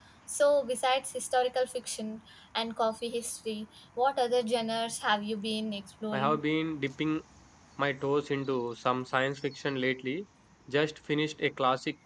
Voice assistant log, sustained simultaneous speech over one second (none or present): none